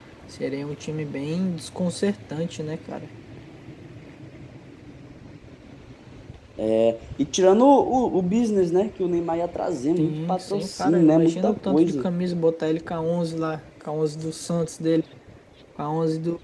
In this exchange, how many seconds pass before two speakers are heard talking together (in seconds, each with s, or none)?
10.0 s